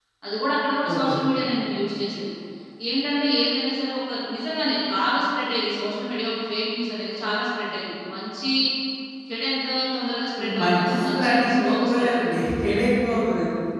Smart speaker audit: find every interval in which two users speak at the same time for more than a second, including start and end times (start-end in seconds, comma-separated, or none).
10.4-12.5